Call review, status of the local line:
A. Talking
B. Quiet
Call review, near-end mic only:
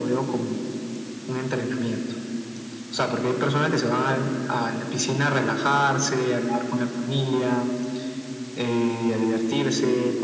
B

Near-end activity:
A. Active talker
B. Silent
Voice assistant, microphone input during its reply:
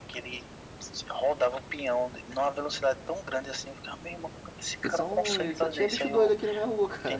A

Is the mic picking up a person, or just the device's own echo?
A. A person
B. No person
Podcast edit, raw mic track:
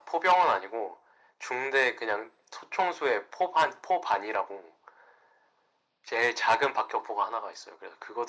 B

